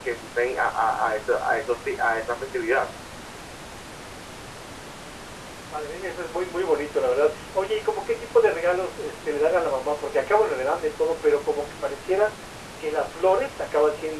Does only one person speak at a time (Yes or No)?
Yes